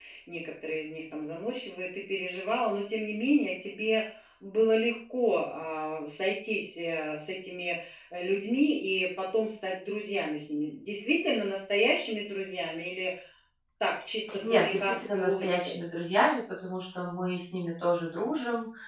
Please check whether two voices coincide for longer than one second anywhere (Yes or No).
Yes